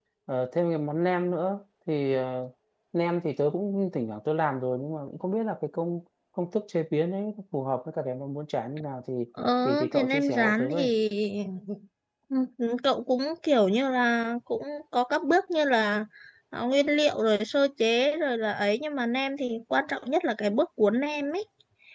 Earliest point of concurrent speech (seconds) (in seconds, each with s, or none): 9.6 s